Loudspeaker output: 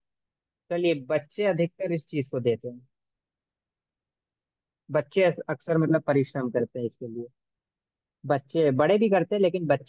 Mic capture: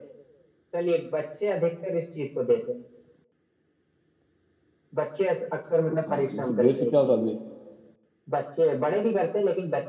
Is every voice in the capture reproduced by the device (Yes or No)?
No